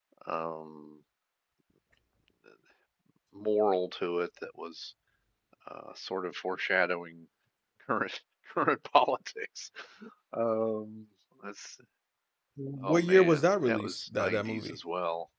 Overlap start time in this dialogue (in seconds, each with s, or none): 12.8 s